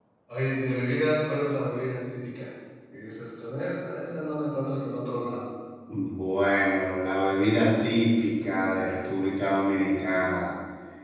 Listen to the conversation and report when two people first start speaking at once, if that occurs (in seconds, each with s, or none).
none